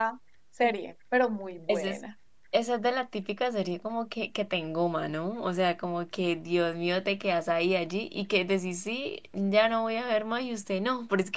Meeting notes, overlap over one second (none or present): none